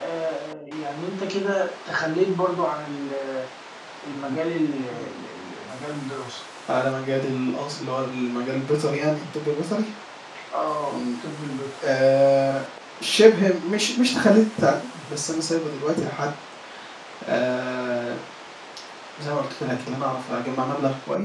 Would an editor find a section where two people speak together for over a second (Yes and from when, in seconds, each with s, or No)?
No